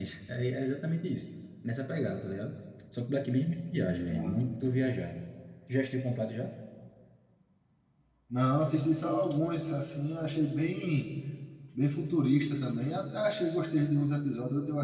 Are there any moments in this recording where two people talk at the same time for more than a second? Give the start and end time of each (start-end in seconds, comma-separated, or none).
none